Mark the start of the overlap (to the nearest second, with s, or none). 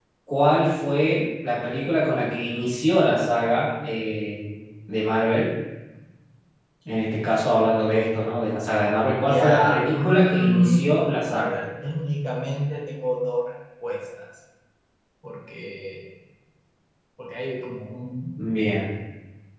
9 s